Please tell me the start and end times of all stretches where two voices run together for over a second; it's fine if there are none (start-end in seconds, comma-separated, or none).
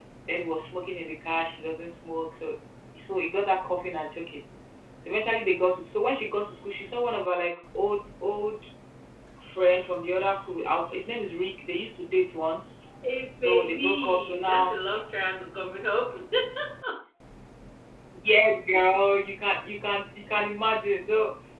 13.4-14.8